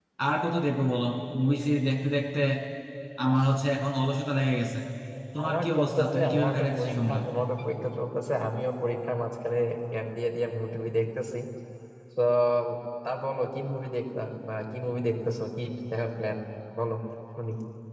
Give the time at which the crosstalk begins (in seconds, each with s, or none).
5.4 s